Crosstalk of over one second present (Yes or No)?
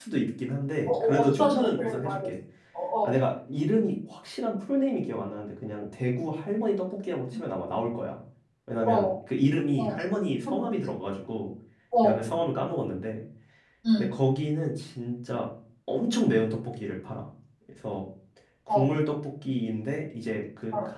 Yes